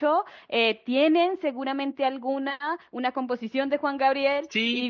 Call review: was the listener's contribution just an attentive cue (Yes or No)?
No